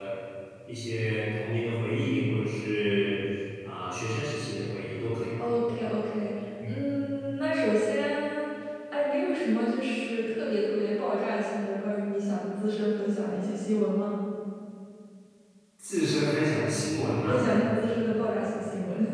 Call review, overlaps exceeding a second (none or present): none